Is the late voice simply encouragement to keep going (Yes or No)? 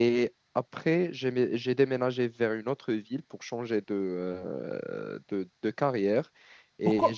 No